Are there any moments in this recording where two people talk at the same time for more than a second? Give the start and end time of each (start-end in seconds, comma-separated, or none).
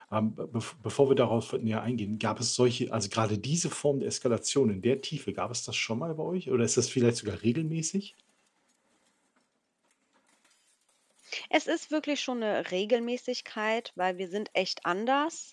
none